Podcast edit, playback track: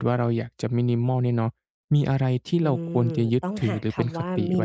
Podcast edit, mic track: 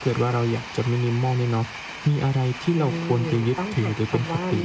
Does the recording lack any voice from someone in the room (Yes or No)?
Yes